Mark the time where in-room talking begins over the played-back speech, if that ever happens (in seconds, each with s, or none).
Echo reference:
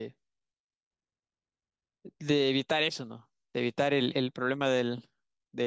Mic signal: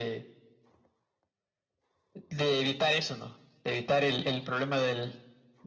none